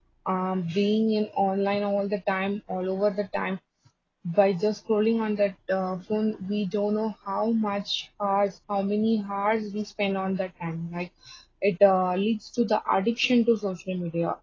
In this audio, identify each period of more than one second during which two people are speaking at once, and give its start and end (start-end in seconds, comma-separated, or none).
none